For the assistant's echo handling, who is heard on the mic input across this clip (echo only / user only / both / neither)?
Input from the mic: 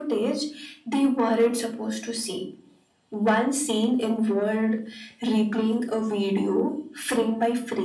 echo only